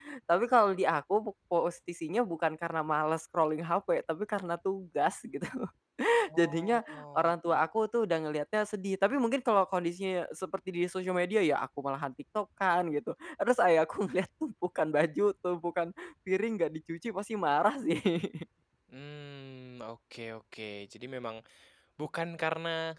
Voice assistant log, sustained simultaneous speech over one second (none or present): present